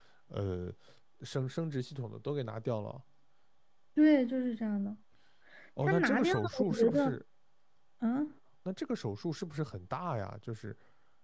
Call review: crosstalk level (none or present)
present